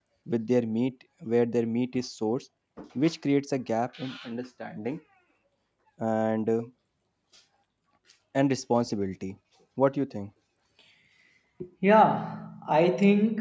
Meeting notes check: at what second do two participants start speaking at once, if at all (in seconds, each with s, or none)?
none